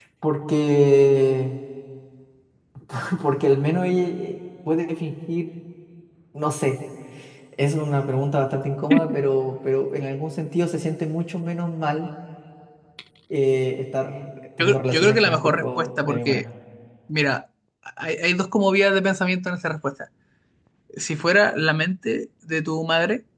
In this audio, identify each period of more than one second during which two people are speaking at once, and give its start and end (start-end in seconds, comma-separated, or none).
14.6-16.4